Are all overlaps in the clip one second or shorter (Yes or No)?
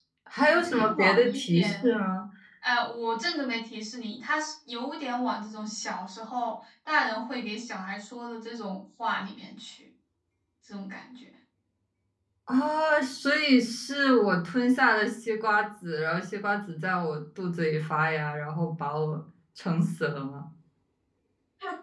No